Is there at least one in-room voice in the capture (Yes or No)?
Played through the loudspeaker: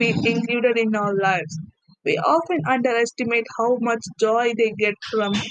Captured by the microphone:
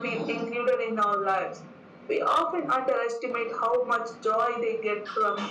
No